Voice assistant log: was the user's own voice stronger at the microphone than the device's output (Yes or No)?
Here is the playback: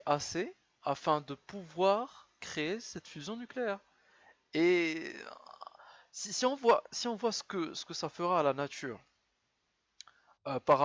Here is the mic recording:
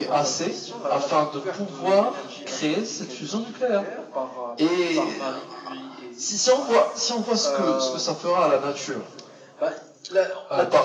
No